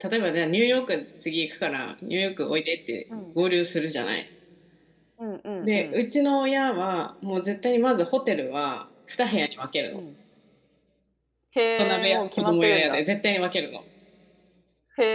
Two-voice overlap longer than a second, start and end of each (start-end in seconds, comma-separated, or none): 11.8-13.0